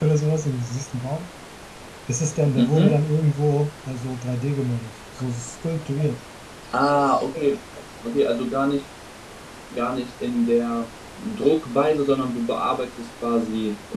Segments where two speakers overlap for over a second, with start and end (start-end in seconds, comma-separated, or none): none